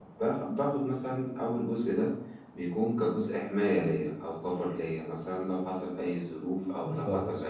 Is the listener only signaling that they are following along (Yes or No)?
Yes